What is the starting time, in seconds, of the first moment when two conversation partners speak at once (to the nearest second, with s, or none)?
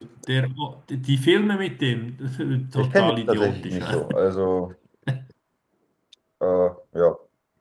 3 s